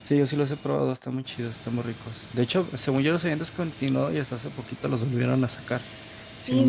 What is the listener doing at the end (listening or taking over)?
taking over